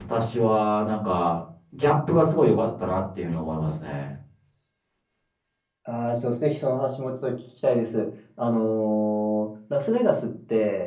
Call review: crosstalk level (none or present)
none